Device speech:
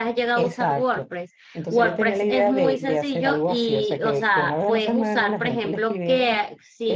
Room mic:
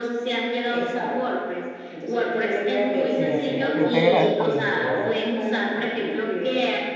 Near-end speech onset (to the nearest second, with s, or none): 3 s